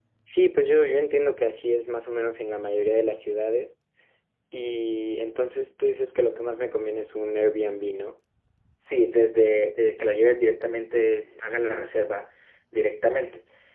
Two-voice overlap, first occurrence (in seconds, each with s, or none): none